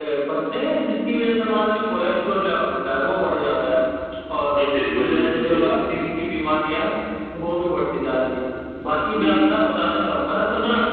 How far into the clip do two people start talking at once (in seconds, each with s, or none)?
4.6 s